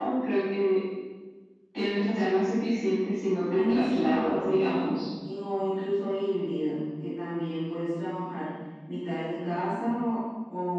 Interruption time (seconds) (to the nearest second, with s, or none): 3 s